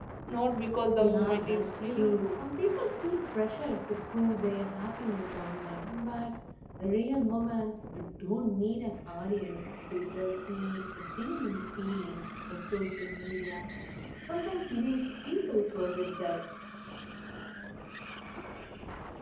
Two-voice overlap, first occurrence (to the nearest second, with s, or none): 1 s